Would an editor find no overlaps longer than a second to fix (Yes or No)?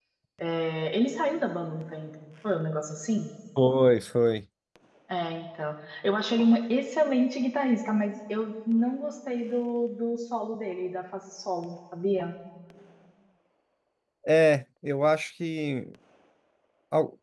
Yes